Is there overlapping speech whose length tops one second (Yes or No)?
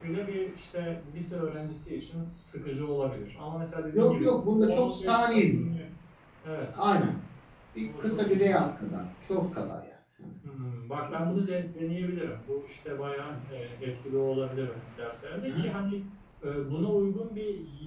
Yes